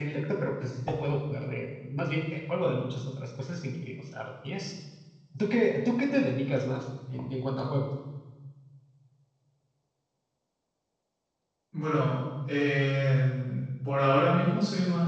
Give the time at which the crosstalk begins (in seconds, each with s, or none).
none